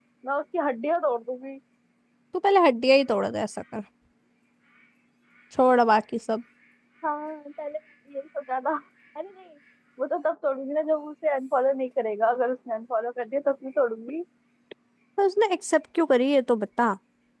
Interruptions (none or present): none